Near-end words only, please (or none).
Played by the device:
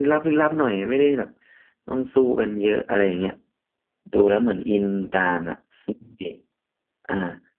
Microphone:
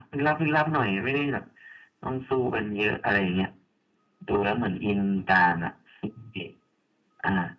none